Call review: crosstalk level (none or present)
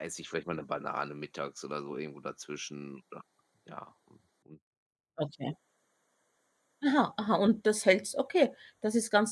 none